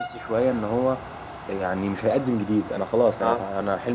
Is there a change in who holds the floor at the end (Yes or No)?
No